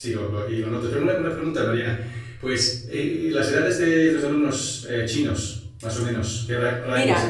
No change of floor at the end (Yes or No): No